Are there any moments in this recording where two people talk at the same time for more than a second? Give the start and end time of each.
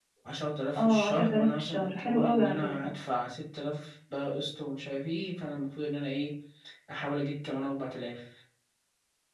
0.8-2.9

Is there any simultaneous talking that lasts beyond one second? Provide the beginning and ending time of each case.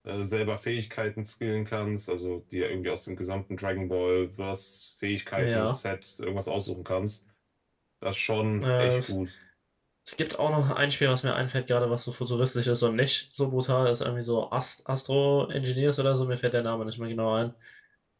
none

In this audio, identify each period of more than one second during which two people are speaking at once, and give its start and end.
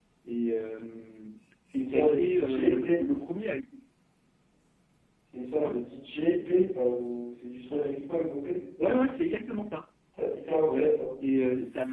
1.8-3.0

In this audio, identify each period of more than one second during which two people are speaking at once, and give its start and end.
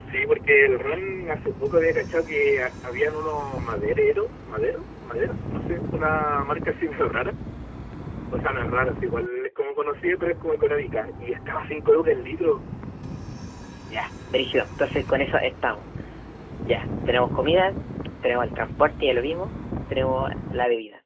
none

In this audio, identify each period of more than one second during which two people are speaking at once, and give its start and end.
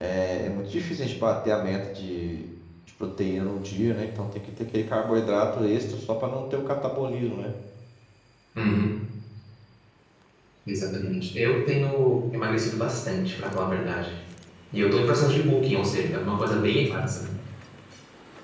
none

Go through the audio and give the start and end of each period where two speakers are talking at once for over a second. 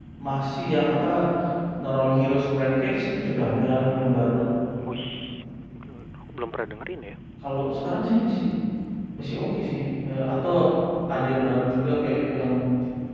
none

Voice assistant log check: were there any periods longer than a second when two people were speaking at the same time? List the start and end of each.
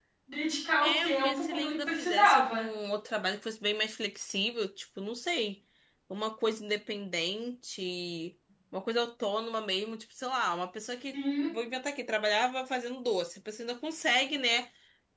0.8-2.7

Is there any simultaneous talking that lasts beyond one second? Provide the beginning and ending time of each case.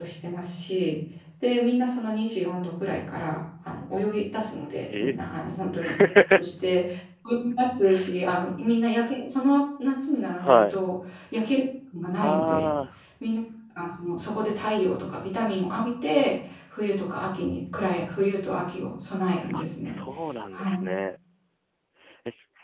none

